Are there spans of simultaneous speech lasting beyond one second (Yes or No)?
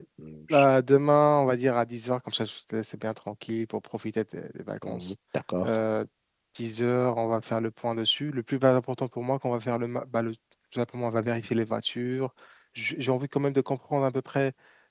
No